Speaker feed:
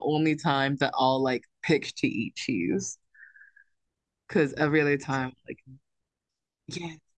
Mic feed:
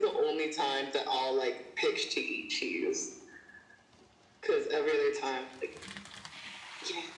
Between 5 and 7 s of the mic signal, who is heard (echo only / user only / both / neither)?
echo only